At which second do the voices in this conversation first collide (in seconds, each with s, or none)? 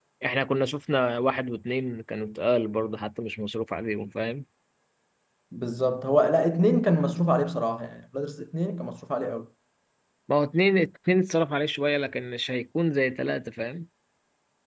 none